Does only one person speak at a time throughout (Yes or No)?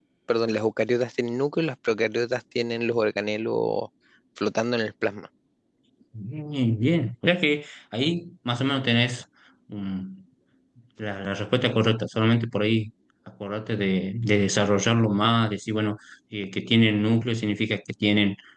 Yes